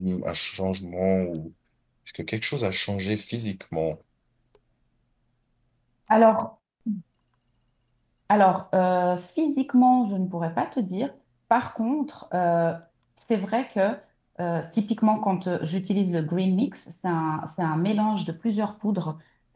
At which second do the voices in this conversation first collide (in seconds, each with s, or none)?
none